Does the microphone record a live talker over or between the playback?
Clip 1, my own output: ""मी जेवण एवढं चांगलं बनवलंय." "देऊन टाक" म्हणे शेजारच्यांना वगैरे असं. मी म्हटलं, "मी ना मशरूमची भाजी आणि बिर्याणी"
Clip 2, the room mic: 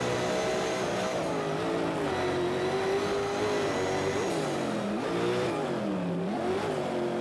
No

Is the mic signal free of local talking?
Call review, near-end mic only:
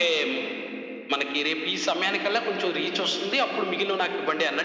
Yes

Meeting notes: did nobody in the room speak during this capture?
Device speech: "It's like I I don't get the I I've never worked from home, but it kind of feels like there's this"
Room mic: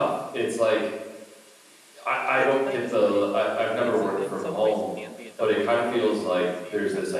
No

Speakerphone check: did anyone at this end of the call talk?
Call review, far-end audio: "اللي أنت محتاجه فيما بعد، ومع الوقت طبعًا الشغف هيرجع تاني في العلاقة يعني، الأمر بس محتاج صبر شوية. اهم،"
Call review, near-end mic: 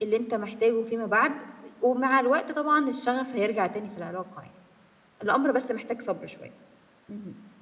No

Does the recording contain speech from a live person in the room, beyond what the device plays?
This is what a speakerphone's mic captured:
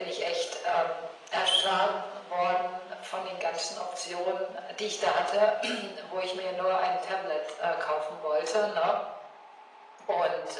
No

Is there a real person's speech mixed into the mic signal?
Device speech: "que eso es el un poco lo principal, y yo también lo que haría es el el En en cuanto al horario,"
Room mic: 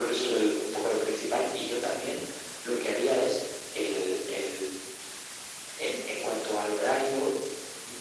No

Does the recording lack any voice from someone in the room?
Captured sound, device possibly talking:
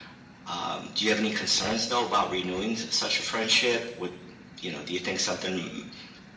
Yes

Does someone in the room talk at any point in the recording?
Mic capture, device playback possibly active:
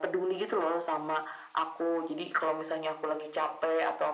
No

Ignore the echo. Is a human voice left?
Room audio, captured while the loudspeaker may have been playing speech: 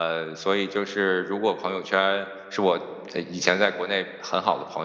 Yes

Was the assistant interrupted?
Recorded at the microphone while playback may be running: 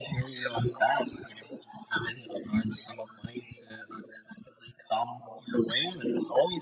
No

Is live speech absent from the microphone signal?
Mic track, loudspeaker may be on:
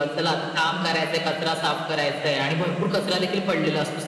Yes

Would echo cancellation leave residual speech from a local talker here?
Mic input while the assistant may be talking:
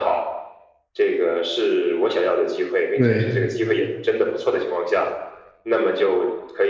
Yes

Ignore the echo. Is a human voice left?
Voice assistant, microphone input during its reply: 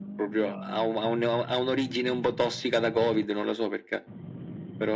No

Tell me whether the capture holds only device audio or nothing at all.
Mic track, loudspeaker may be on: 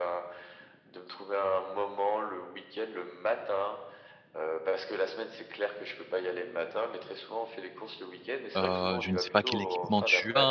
No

